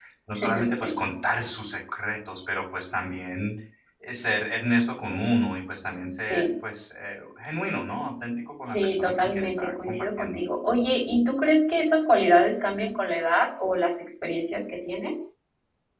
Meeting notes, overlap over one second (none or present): present